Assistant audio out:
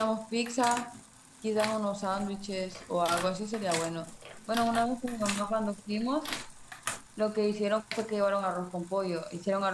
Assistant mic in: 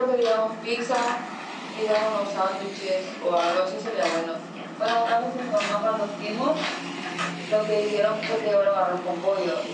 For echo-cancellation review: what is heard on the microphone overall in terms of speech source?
echo only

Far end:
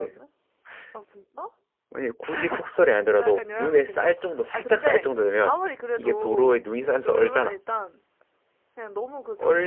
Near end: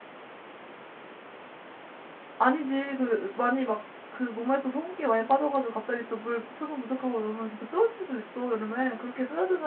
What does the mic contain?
user only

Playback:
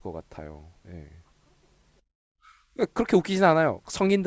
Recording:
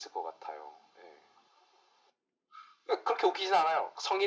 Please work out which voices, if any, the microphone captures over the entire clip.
echo only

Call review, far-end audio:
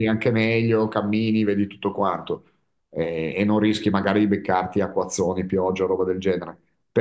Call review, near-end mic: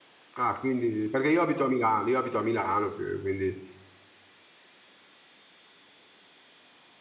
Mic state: user only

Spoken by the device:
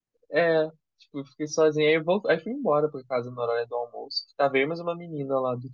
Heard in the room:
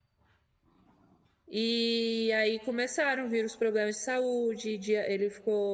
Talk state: user only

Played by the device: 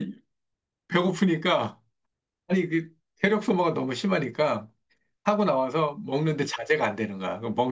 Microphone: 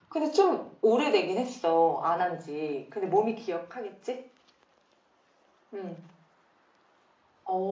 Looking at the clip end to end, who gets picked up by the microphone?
user only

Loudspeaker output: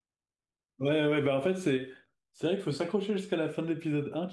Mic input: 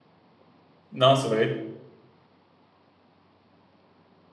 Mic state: user only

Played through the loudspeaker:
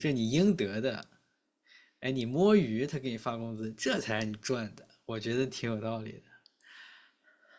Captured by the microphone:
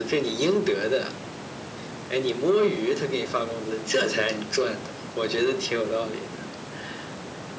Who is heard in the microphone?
echo only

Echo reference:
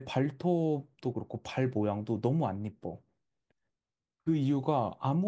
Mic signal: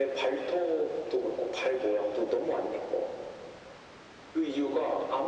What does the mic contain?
echo only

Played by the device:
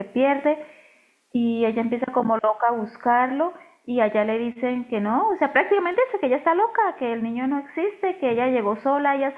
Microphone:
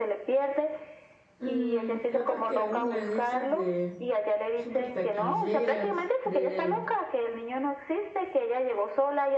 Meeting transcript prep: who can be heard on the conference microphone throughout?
both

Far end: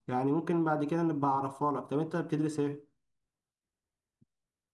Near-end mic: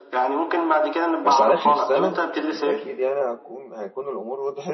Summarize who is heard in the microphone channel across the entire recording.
both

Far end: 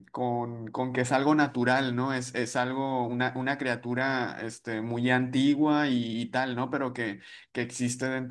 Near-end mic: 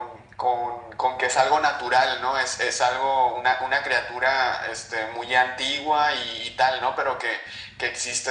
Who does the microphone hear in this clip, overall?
echo only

